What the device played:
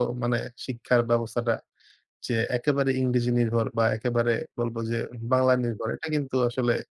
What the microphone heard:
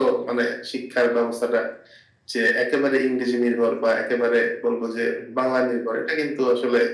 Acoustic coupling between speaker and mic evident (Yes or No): Yes